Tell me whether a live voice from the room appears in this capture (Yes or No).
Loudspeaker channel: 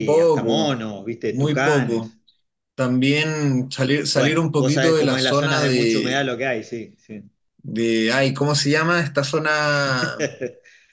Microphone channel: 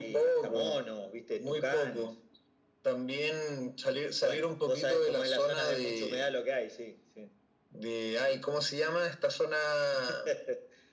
No